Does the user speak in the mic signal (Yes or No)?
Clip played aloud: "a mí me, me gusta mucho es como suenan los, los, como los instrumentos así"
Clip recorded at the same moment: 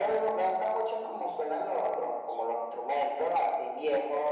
No